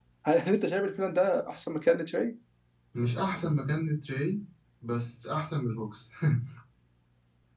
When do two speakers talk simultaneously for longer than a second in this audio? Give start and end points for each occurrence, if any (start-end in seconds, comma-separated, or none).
none